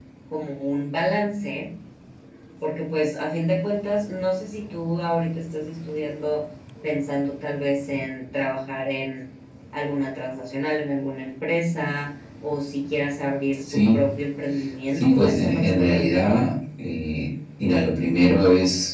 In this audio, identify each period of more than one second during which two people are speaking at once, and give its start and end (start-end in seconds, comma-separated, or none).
15.0-16.4